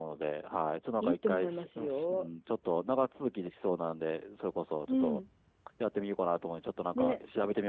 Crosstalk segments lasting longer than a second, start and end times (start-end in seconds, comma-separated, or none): 1.0-2.3